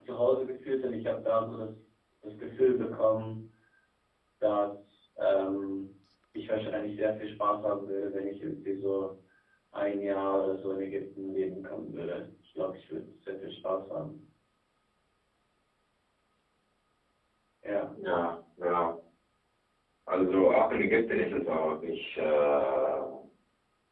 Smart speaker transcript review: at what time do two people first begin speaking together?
none

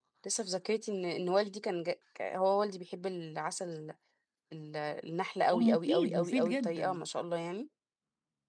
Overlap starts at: 5.5 s

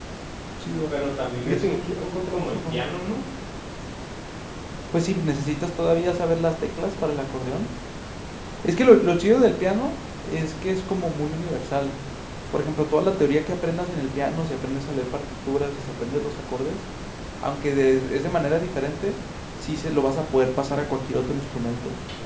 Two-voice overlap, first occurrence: 1.4 s

